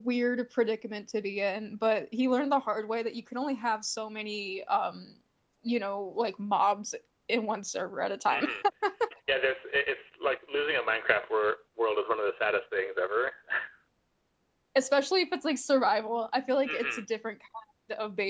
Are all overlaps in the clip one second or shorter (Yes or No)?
Yes